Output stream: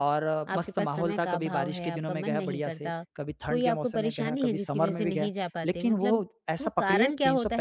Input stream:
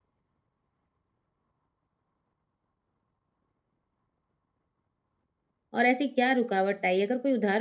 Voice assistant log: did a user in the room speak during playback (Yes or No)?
Yes